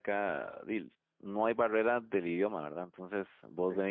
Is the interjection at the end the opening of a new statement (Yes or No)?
No